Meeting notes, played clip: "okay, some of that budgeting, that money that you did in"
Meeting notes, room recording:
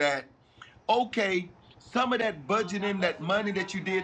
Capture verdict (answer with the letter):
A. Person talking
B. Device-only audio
A